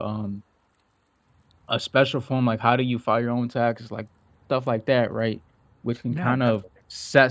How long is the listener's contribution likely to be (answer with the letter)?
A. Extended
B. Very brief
B